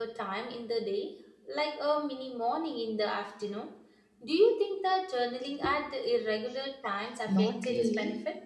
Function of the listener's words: taking over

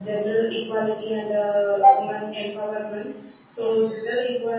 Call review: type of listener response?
listening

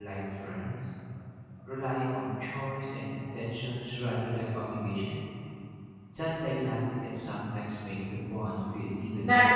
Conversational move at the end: taking over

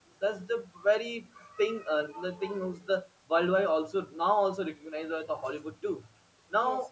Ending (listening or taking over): listening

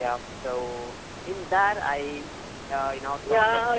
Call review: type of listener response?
taking over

